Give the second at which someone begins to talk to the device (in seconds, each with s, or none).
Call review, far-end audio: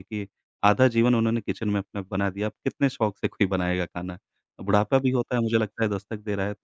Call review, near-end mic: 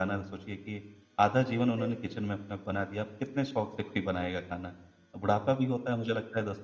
1.8 s